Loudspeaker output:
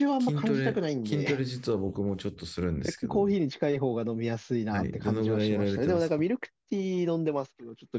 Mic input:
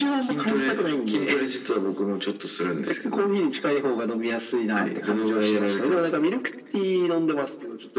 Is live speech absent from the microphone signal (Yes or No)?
Yes